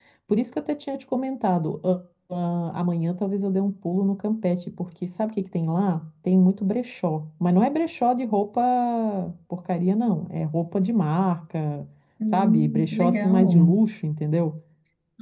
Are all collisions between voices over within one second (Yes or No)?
No